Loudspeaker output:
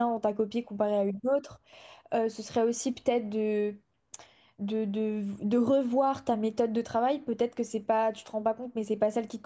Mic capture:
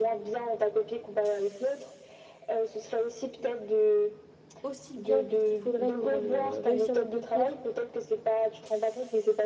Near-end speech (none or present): present